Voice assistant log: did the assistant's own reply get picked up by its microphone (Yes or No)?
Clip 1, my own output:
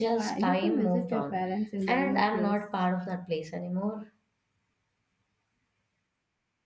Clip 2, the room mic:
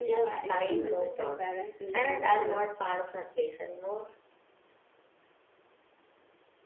Yes